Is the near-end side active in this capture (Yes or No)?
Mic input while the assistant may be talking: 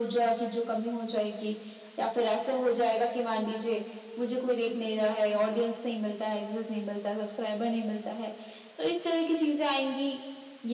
No